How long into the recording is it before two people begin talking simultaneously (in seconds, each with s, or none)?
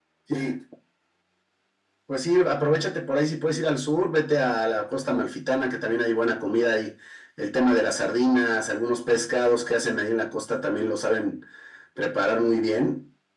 none